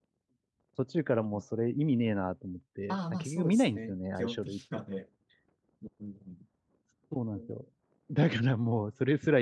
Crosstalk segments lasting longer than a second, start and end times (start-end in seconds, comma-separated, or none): 2.9-4.6